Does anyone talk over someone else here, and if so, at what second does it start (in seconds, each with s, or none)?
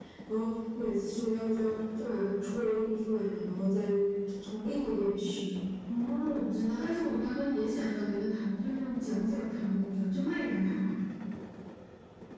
none